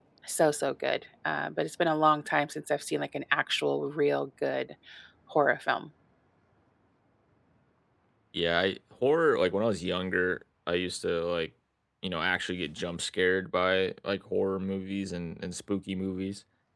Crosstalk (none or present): none